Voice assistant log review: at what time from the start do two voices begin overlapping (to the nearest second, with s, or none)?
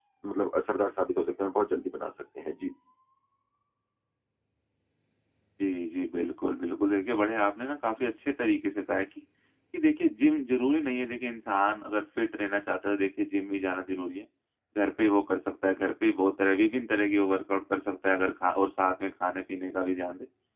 none